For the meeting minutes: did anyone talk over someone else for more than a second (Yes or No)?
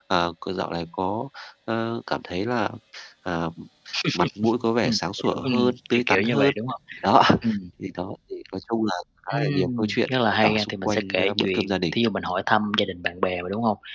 Yes